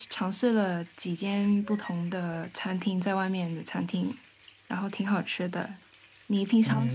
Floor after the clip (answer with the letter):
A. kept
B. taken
B